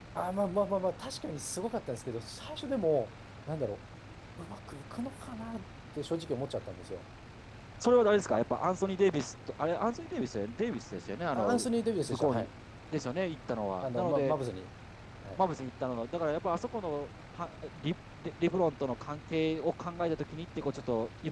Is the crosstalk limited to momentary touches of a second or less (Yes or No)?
Yes